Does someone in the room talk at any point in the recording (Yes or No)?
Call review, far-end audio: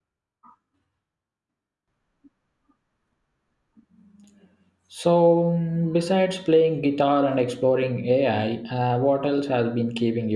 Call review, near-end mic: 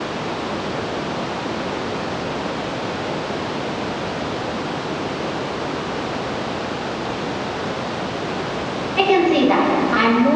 Yes